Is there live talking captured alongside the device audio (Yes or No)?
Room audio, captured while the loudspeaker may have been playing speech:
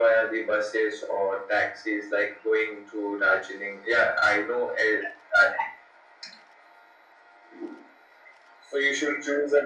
No